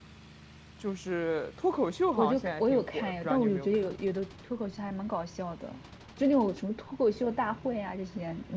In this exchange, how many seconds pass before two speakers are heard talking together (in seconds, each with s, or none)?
2.2 s